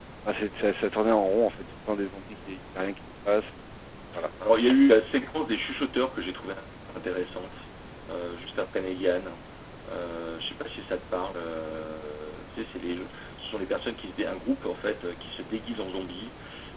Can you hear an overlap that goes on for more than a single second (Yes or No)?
No